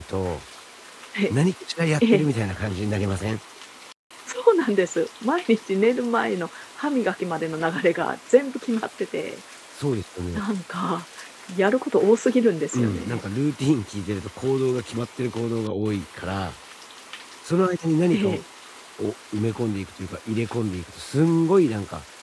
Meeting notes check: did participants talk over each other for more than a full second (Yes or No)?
No